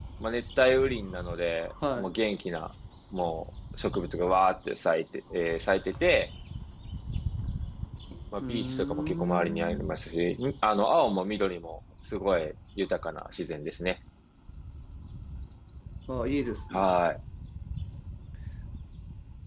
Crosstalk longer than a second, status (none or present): present